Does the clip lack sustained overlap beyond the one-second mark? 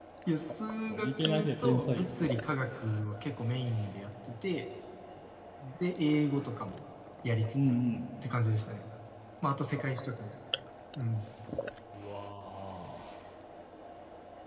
No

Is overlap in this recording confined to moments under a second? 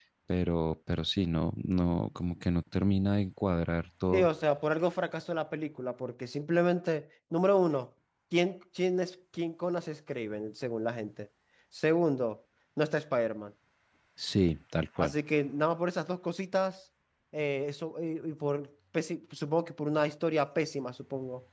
Yes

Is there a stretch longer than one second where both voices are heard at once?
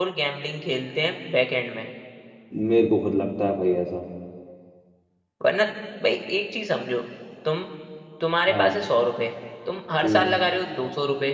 No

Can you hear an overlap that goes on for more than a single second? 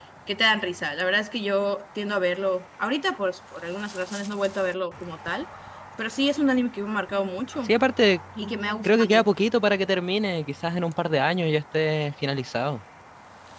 No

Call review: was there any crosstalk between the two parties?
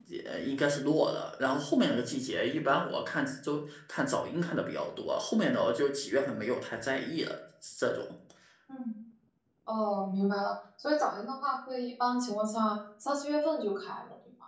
No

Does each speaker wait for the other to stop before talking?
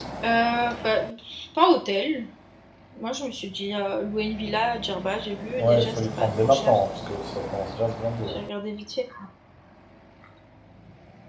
No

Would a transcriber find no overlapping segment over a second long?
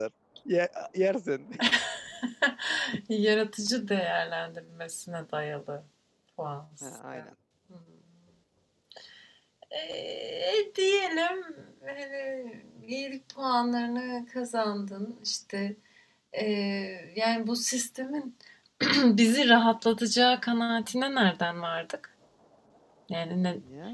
Yes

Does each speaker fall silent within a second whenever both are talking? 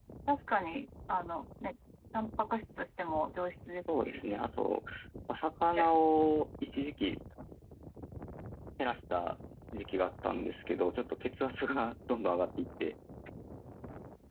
Yes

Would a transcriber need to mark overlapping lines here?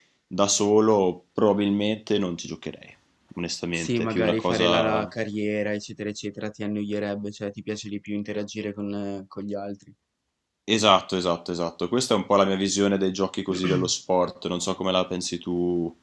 Yes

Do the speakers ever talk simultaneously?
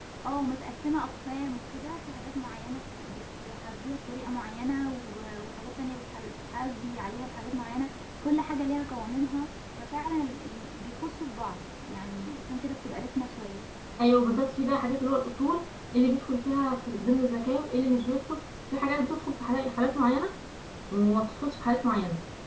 No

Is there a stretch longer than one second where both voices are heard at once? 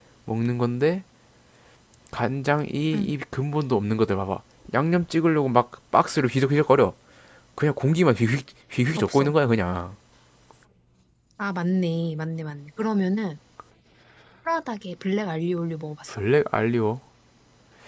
No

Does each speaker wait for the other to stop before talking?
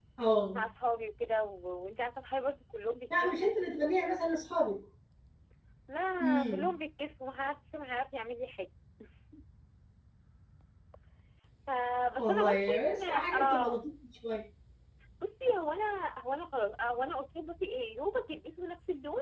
No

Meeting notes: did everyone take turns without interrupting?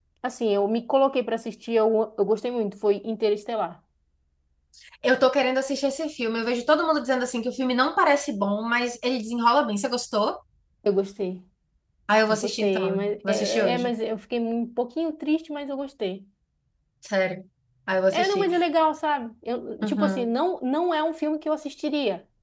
No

